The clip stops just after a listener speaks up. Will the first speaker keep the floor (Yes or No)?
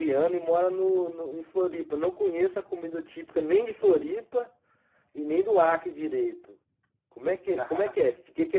Yes